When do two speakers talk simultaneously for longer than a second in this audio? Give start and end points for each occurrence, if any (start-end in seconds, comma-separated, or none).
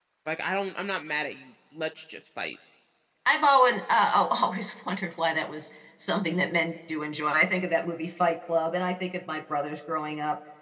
none